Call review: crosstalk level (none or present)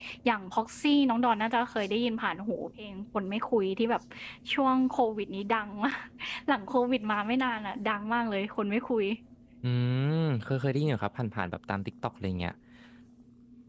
none